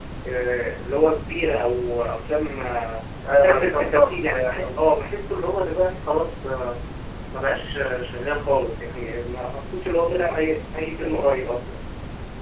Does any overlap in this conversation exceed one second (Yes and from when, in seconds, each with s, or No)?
Yes, from 3.4 s